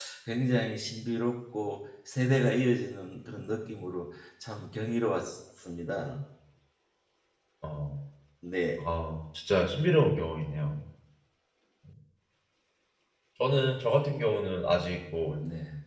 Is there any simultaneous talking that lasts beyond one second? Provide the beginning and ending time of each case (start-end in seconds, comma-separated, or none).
none